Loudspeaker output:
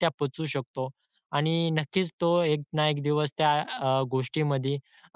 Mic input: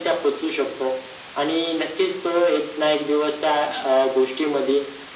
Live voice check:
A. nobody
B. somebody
A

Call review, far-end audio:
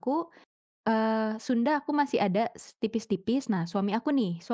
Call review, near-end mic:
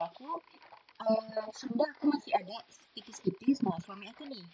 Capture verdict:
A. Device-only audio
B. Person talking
A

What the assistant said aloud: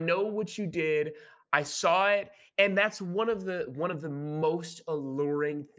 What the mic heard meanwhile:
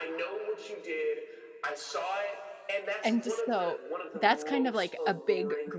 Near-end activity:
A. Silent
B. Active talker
B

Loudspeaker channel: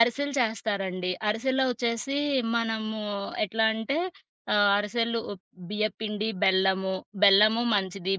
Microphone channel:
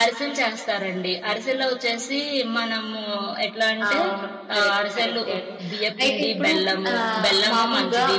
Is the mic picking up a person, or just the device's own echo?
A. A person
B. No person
A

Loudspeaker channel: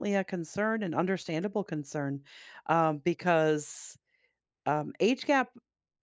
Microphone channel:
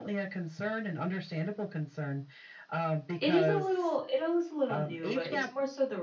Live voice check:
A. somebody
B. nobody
A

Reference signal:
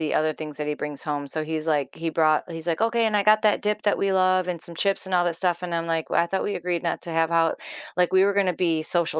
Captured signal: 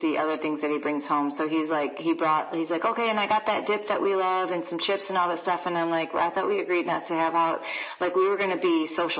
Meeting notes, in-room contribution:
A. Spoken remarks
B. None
B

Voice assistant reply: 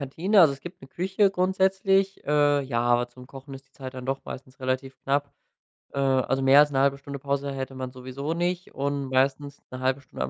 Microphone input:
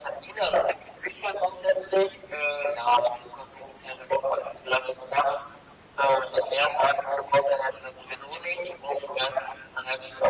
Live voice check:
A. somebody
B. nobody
B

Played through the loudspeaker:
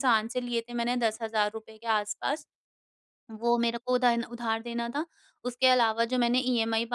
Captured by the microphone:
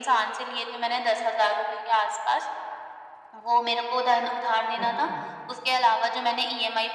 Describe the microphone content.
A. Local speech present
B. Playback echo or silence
A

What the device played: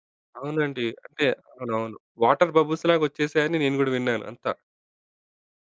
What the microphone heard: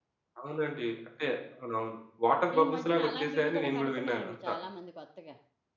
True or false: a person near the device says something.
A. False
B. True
B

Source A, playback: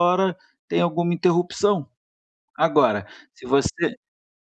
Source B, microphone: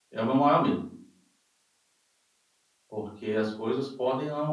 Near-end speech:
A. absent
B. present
B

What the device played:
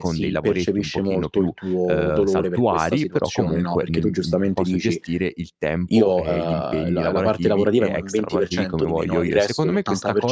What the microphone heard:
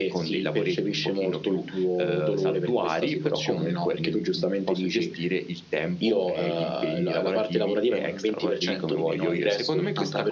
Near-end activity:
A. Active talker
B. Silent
B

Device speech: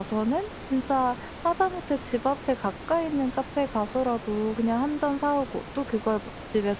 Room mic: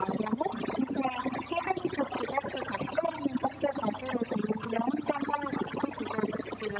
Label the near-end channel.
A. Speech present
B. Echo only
B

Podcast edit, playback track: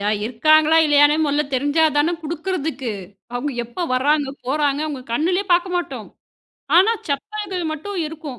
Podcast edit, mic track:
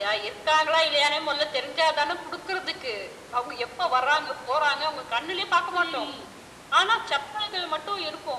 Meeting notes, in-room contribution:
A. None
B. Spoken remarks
B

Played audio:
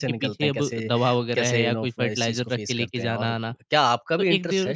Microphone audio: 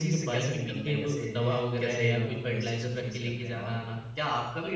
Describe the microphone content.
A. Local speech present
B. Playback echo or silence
B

